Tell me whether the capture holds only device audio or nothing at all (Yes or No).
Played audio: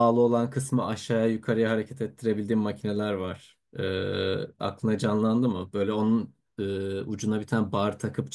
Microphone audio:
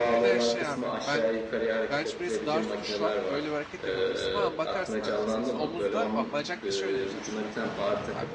No